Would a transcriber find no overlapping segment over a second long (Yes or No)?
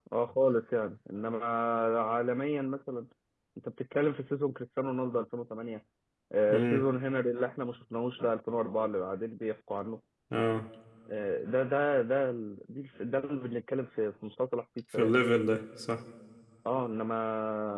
Yes